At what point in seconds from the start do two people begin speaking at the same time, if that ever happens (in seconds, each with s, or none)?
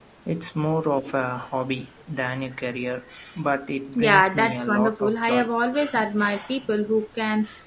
4.0 s